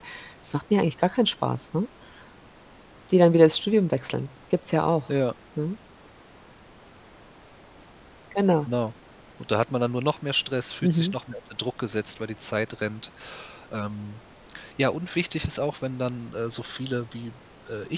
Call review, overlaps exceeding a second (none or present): none